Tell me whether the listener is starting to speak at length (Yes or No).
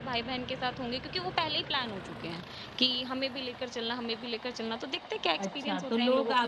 Yes